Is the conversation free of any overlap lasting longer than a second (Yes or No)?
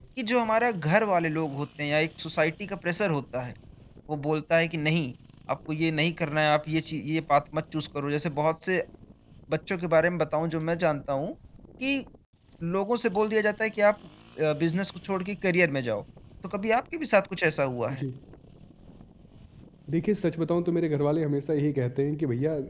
Yes